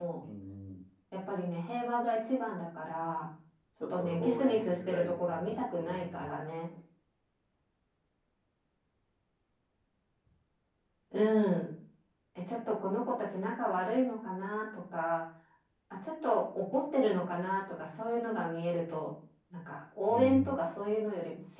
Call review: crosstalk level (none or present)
present